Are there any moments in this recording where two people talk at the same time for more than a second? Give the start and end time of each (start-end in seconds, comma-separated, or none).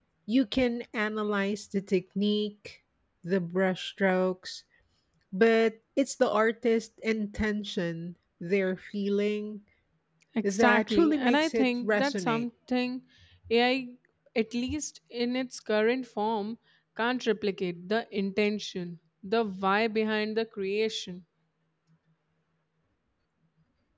10.4-12.4